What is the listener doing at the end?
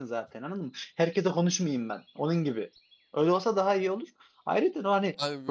taking over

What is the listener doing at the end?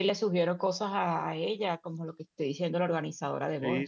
taking over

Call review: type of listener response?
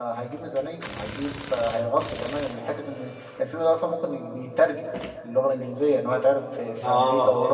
taking over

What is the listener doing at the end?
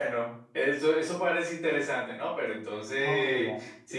taking over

